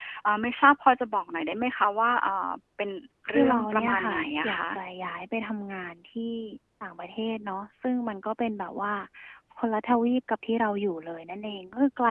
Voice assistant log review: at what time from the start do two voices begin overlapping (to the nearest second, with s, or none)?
3 s